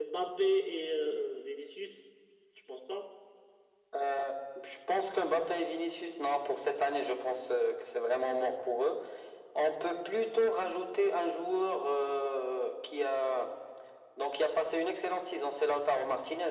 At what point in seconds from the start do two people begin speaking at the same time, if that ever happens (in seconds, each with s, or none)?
none